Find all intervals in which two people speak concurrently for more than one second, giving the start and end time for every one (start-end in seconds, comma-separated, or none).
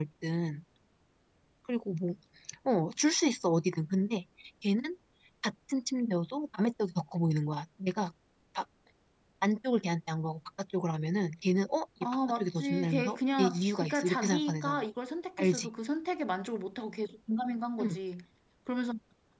12.3-14.8